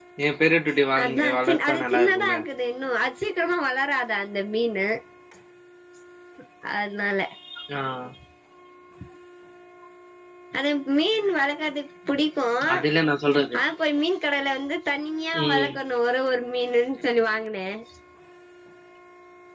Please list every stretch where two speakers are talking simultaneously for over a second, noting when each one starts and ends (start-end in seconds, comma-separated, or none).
1.0-2.4